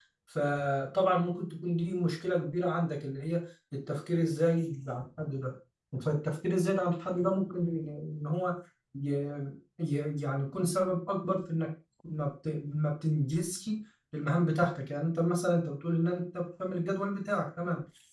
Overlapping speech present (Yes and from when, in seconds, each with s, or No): No